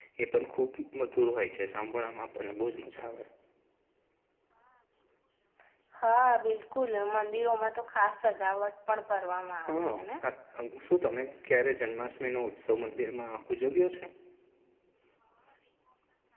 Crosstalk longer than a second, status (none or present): none